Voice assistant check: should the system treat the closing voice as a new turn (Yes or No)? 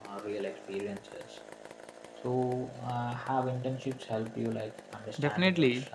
Yes